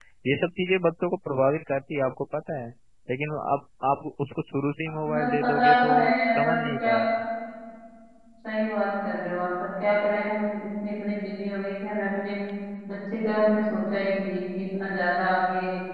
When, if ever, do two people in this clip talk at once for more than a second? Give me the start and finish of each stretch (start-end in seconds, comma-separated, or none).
5.1-7.0